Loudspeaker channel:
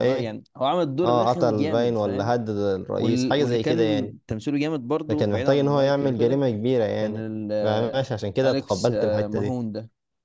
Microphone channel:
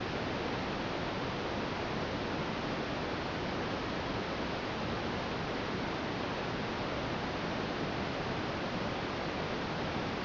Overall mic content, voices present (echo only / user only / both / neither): neither